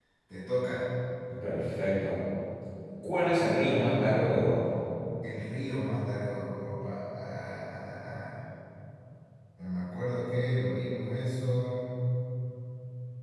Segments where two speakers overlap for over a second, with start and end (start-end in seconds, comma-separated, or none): none